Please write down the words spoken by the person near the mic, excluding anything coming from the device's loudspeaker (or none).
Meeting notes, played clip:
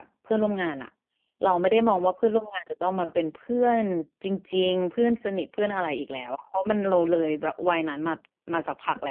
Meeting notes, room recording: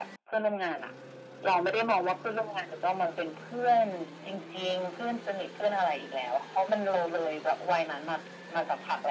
none